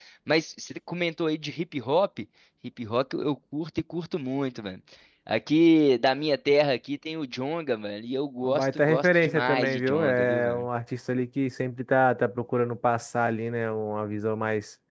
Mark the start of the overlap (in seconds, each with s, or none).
8.4 s